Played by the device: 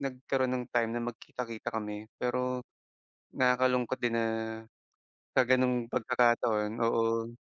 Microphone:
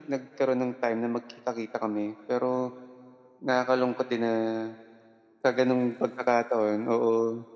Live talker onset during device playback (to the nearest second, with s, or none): none